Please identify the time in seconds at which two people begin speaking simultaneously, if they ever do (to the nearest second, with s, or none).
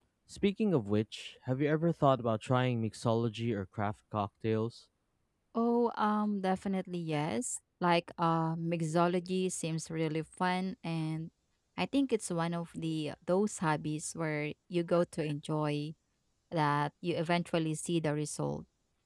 none